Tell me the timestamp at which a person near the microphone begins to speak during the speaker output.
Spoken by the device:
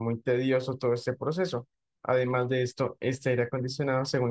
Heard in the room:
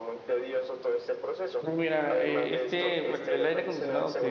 1.6 s

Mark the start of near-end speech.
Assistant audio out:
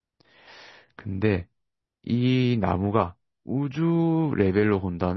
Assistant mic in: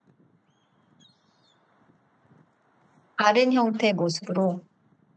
3.1 s

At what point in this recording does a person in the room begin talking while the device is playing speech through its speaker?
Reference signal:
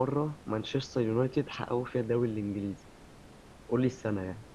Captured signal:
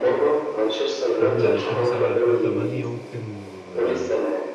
1.2 s

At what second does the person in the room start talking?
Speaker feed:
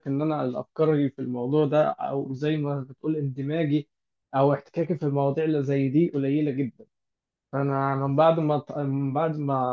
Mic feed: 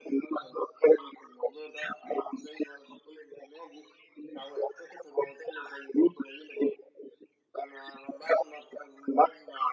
none

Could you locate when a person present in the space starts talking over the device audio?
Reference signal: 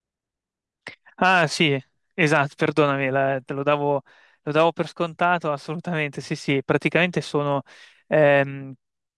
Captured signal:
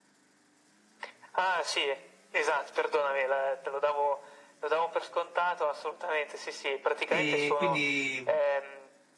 7.0 s

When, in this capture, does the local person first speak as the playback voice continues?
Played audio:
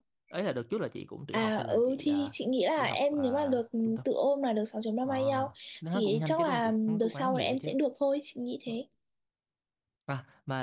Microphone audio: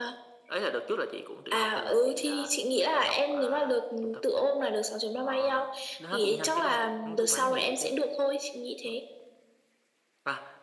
none

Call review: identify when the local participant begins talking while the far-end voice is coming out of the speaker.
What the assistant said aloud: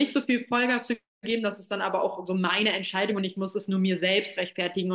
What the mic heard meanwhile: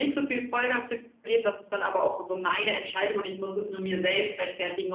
none

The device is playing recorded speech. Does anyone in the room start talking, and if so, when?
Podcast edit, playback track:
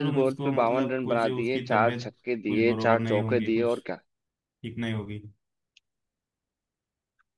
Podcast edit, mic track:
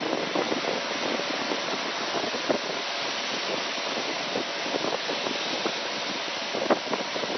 none

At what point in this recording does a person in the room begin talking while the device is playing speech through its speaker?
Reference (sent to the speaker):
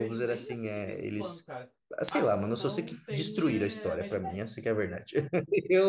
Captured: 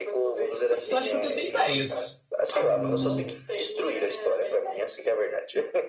0.7 s

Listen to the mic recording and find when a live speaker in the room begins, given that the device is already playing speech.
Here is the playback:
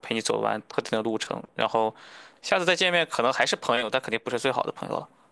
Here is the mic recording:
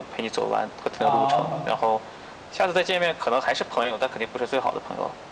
1.0 s

